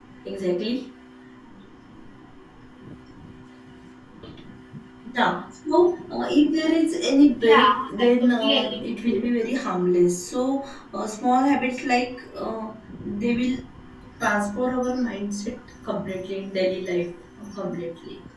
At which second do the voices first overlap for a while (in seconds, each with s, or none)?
7.4 s